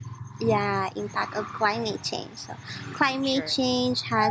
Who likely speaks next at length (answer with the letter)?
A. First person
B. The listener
A